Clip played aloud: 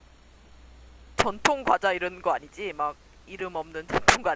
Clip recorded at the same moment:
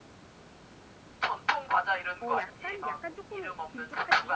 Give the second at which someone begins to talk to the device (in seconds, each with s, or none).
2.2 s